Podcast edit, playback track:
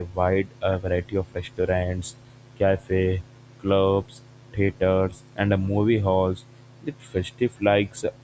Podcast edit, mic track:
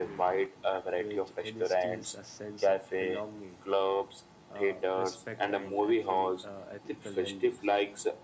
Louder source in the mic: echo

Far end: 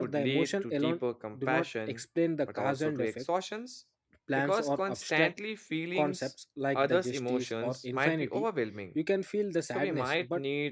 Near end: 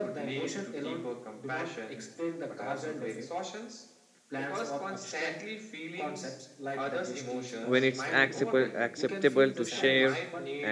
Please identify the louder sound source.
user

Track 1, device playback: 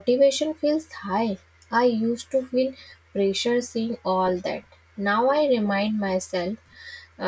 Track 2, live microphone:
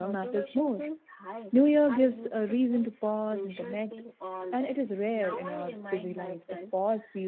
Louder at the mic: user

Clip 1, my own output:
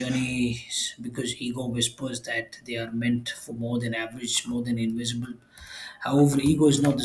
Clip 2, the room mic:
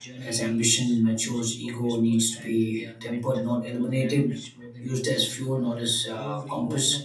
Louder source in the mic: user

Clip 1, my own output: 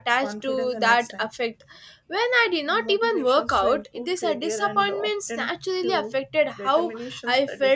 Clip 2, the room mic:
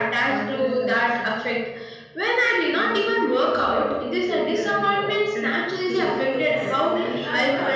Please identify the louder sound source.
echo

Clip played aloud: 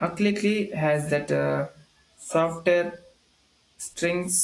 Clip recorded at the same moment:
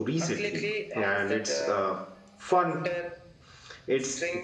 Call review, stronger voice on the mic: user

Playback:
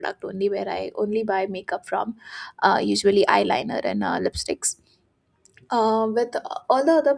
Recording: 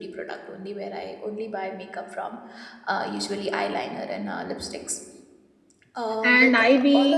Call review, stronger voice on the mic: user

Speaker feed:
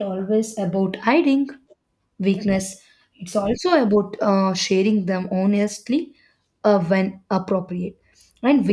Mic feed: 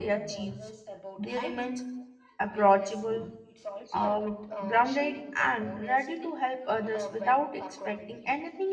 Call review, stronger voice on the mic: user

